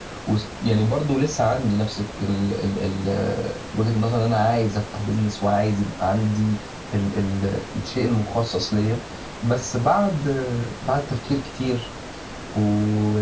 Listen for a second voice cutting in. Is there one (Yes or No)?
No